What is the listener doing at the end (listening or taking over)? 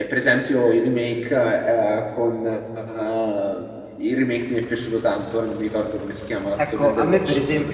taking over